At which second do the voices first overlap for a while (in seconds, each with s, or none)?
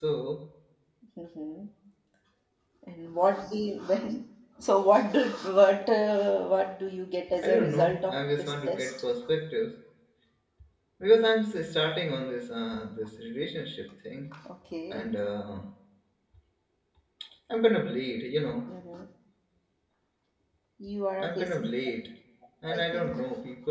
7.4 s